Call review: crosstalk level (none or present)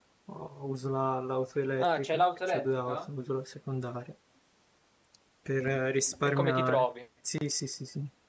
present